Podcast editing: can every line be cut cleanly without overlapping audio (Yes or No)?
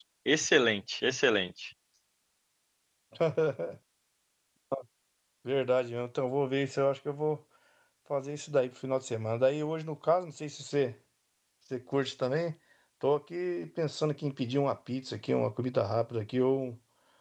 Yes